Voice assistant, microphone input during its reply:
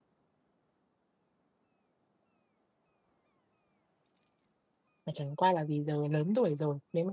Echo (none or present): none